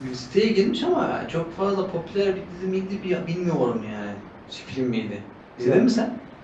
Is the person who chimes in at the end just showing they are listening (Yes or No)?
No